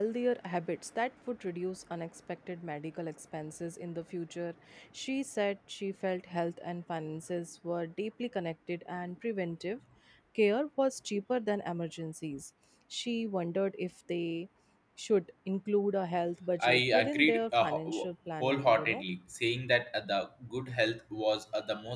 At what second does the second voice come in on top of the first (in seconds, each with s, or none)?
16.6 s